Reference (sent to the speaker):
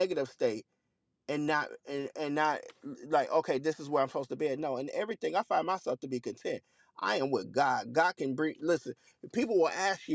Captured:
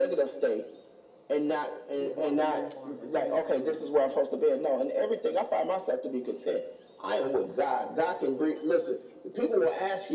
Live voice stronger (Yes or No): No